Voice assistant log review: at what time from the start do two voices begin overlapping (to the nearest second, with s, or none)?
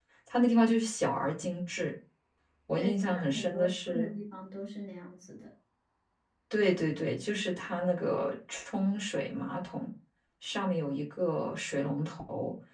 3 s